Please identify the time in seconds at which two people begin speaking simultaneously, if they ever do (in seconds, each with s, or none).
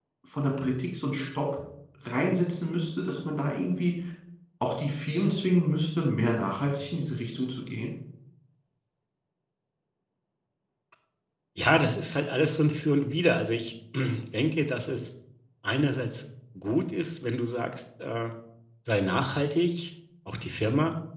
none